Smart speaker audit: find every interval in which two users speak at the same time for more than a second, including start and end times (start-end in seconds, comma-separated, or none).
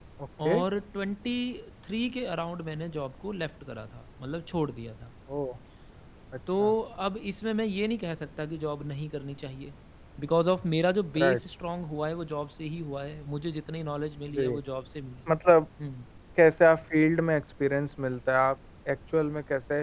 none